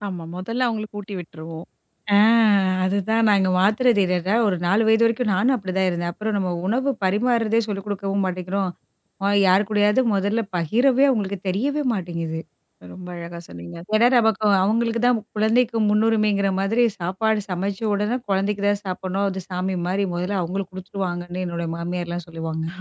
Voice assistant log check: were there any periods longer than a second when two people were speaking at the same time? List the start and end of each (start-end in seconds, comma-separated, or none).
none